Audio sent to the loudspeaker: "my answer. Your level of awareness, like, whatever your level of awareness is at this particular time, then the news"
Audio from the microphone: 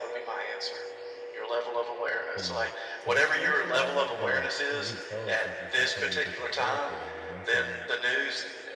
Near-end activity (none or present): present